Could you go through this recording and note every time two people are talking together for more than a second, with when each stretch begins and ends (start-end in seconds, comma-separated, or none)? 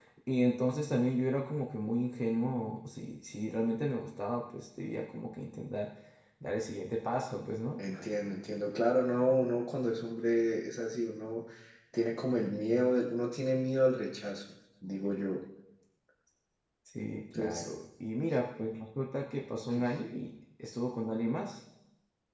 none